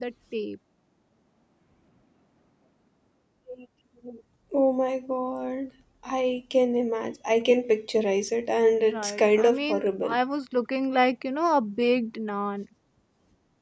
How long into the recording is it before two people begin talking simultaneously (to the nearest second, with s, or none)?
9 s